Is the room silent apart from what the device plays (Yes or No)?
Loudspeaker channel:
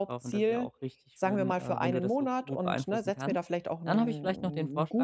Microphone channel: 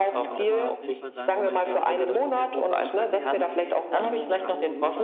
No